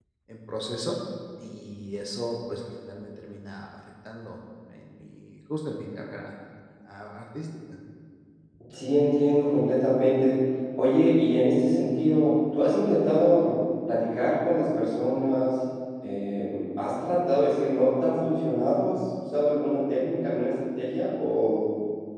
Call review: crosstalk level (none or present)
none